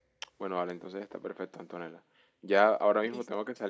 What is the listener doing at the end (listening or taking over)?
listening